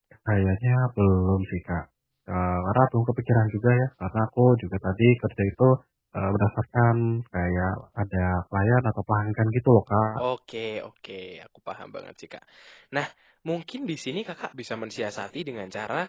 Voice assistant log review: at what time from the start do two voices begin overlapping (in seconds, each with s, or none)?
none